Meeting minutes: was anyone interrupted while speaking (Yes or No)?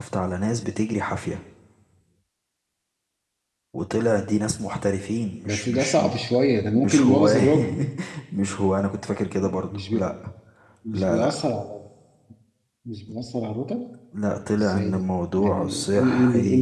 Yes